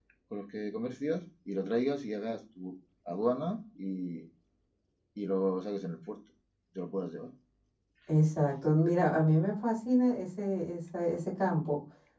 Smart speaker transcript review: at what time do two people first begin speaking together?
none

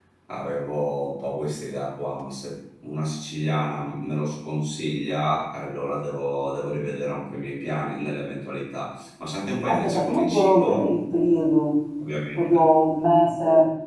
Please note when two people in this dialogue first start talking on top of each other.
10 s

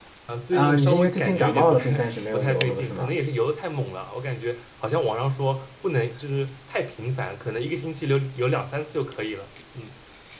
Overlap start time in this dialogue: 1 s

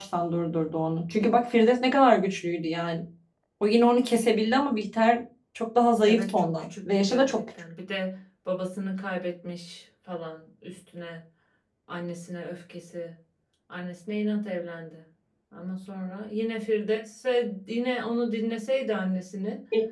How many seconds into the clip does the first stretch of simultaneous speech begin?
6 s

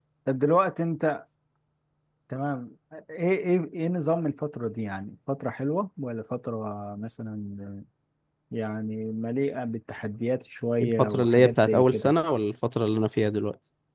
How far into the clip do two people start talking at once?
11 s

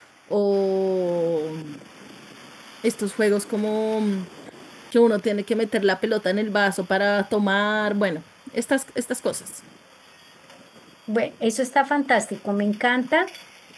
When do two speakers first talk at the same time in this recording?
none

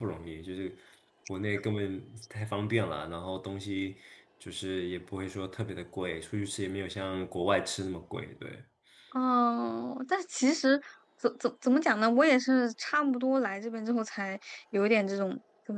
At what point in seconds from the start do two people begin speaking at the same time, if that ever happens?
none

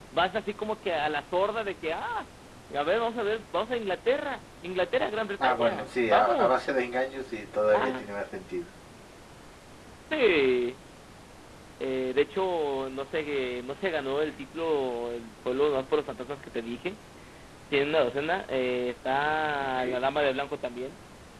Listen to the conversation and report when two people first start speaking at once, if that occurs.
5 s

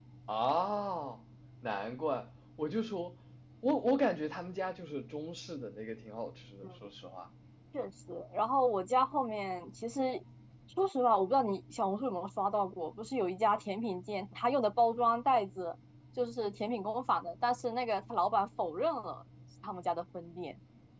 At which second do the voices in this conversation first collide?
none

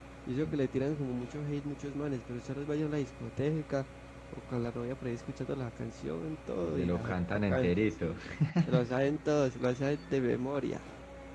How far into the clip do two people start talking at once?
7 s

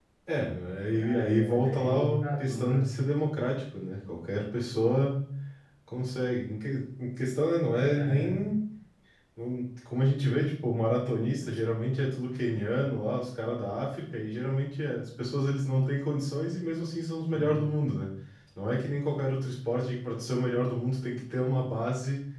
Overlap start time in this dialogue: 1 s

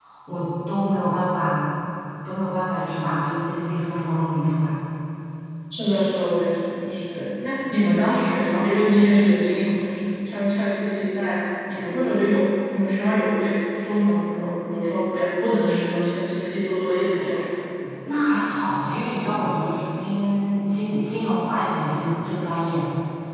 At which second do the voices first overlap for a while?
none

